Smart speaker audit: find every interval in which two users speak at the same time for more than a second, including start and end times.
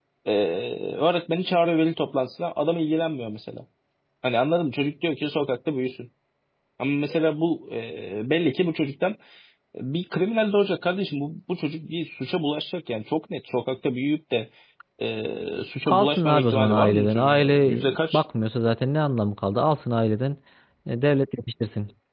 15.9-18.2

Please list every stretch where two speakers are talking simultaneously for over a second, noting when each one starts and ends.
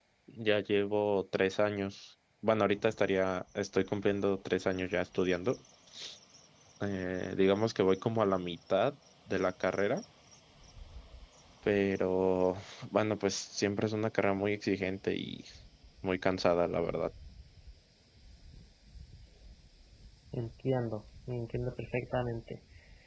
none

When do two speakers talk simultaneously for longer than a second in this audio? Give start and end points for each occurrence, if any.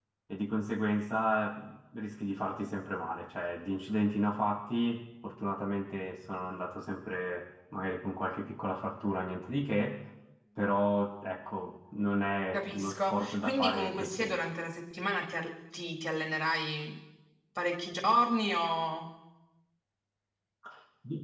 12.5-14.5

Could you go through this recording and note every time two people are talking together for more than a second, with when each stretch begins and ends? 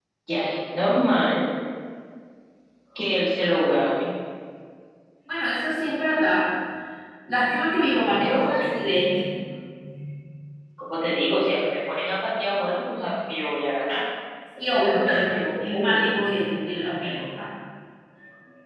14.8-16.0

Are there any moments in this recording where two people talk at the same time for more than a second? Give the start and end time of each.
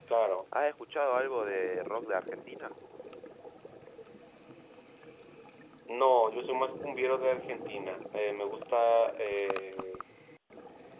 none

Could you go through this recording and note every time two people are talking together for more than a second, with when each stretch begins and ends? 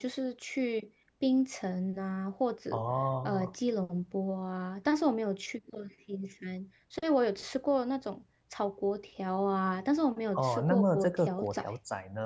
10.4-11.6

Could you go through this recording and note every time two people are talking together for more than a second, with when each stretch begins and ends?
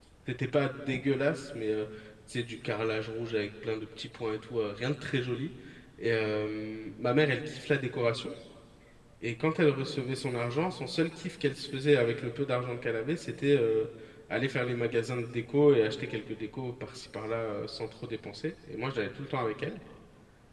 none

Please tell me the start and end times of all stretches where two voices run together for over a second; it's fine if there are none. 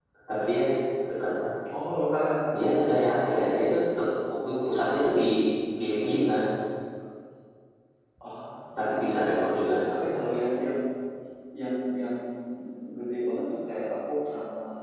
none

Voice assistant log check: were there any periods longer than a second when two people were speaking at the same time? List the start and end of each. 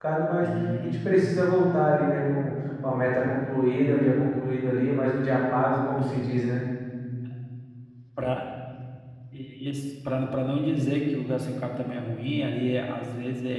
none

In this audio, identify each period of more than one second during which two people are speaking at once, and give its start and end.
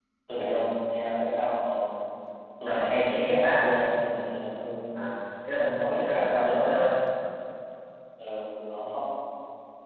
2.6-3.9, 5.6-6.8

